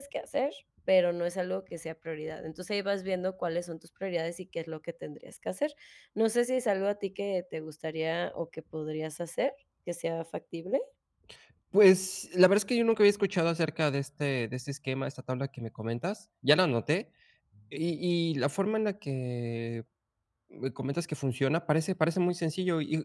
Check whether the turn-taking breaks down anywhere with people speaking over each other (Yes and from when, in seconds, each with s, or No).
No